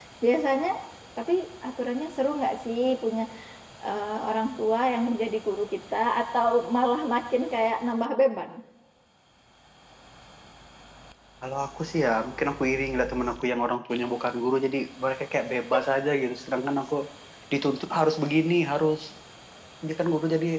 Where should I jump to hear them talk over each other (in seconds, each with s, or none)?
none